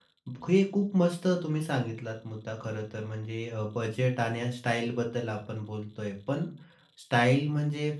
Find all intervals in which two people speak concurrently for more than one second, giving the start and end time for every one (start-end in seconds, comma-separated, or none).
none